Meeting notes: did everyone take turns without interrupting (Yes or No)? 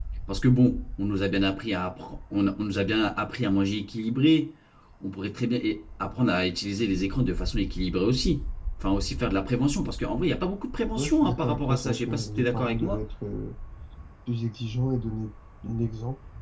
No